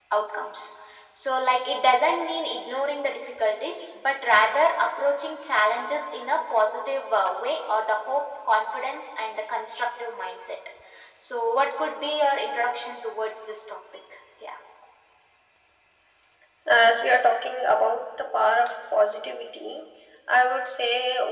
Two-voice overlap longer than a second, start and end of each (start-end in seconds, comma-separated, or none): none